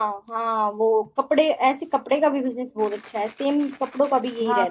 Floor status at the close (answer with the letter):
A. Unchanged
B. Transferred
B